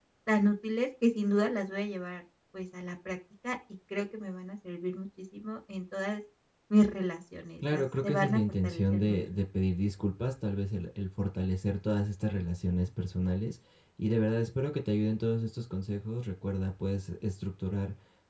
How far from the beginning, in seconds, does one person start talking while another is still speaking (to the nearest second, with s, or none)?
8 s